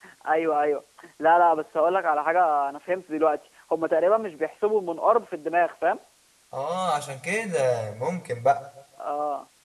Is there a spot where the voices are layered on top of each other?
No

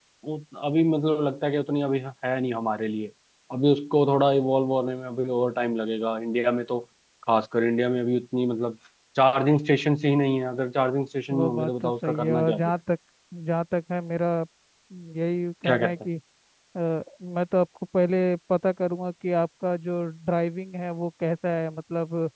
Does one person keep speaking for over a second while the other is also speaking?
Yes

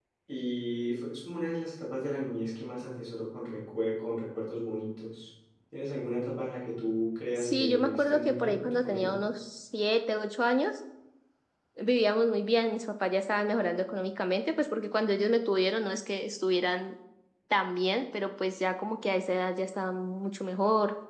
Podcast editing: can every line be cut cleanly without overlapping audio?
No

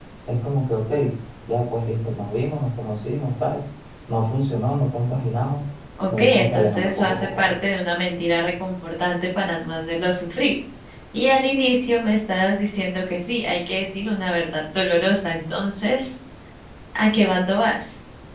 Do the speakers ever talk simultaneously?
Yes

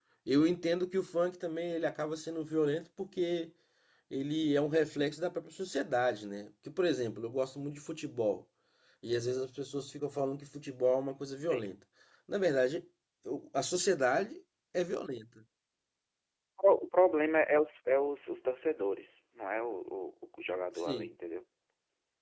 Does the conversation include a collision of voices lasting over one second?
No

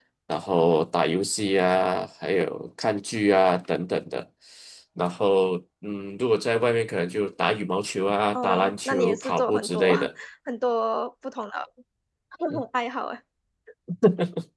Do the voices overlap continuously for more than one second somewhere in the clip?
Yes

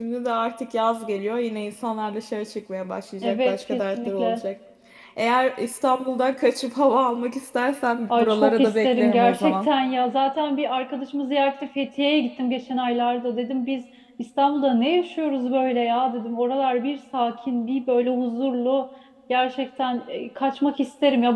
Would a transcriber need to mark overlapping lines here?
Yes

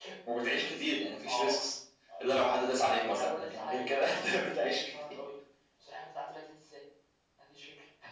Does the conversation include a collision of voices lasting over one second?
Yes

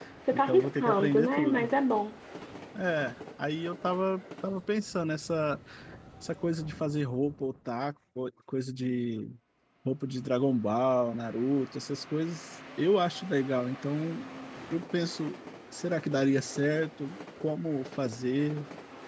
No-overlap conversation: No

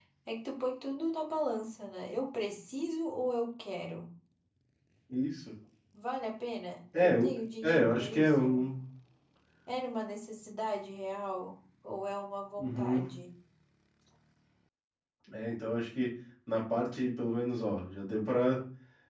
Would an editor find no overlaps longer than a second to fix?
No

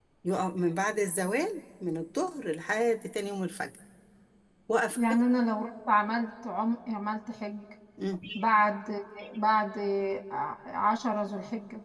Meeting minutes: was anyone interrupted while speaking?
No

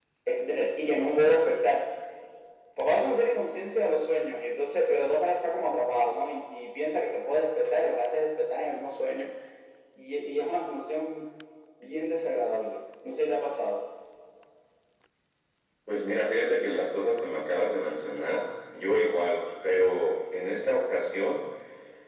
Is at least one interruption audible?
No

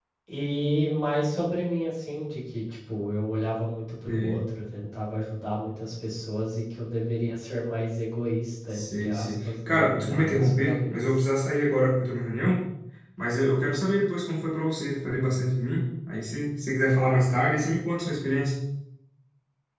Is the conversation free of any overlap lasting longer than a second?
No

